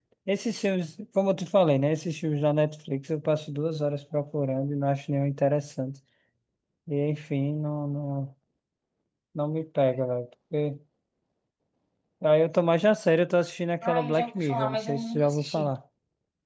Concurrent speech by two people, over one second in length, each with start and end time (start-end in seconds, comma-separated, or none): 13.8-15.7